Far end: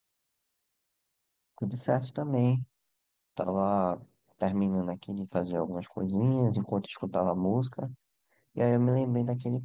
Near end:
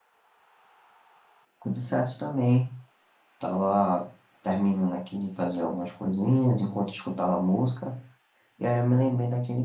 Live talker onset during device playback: none

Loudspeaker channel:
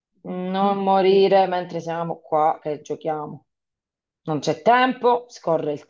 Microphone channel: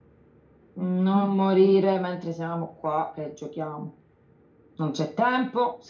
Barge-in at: none

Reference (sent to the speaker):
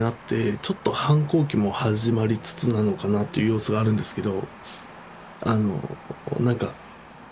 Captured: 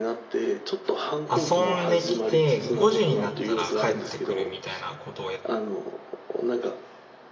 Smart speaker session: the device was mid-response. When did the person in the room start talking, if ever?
1.3 s

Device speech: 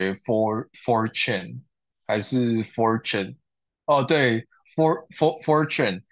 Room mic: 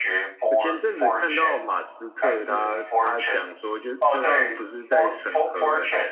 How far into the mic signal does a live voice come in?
0.5 s

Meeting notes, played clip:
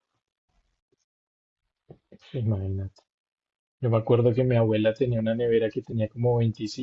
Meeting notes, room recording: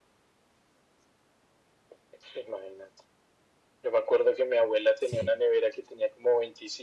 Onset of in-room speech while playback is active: 5.0 s

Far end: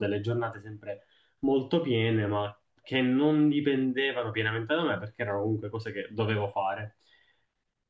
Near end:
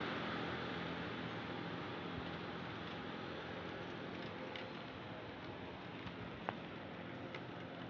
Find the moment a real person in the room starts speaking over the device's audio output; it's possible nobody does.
none

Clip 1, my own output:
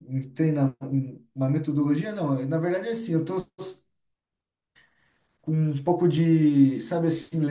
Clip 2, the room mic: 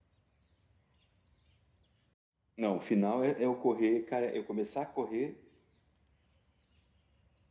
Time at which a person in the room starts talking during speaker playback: 2.5 s

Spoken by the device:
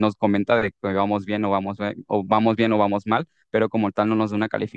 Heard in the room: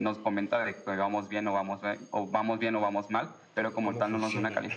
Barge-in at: 3.5 s

